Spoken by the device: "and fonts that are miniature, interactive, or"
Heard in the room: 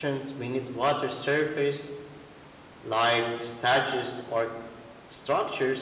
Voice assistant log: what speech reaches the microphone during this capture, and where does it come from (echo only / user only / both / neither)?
user only